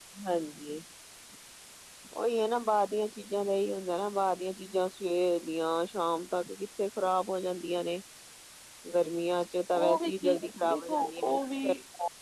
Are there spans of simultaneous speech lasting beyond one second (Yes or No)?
Yes